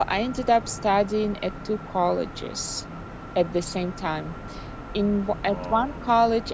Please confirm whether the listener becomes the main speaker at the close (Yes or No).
No